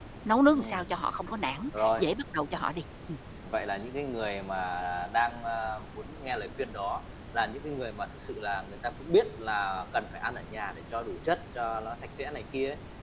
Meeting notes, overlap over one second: none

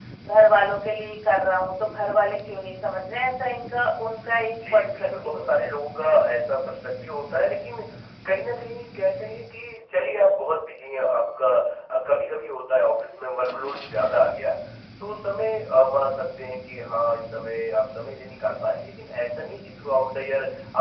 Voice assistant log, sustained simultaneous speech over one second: present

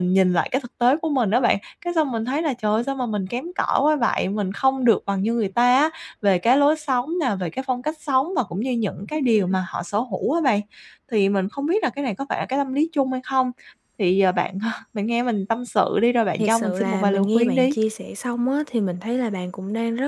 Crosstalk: present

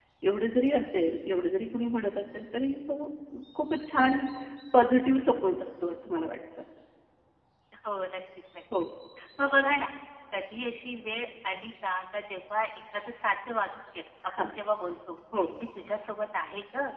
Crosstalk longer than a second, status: none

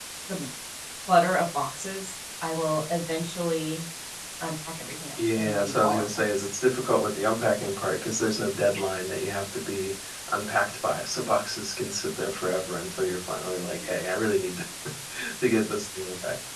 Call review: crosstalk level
present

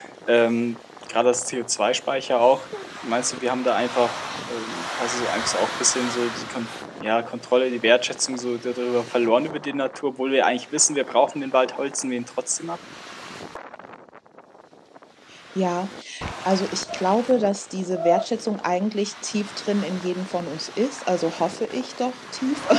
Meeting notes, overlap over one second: none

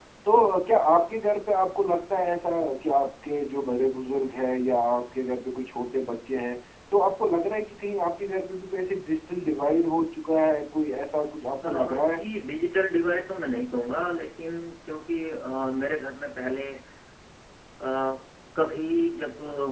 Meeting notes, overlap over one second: none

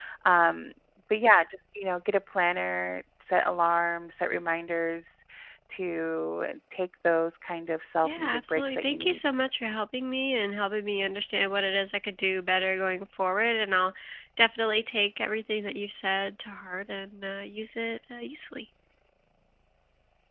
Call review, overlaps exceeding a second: present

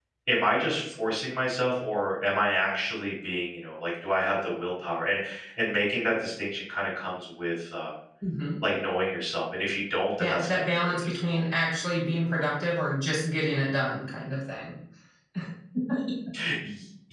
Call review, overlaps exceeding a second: present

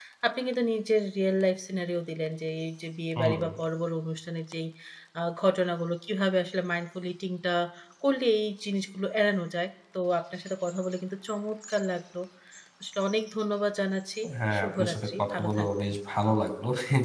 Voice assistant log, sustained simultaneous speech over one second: present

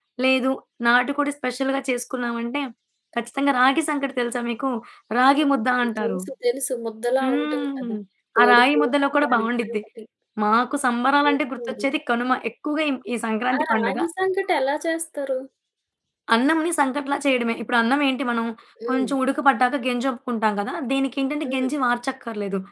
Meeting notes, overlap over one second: present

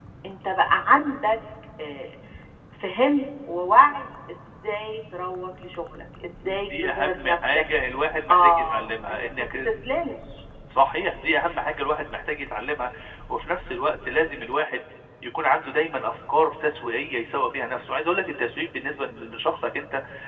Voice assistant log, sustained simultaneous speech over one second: present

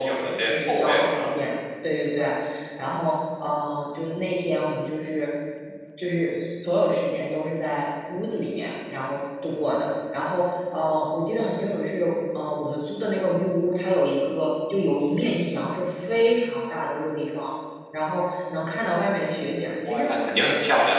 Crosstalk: present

